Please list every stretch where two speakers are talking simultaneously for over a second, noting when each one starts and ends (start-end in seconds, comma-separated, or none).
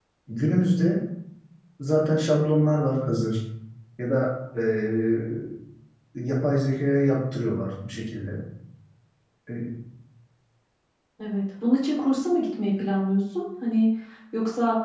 none